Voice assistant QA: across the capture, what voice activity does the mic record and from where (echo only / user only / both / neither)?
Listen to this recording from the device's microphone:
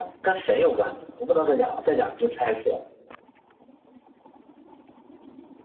user only